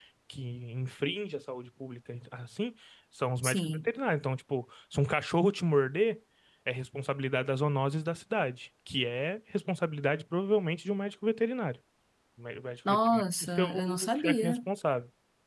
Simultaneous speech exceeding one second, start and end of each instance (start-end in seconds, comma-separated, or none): 12.9-14.6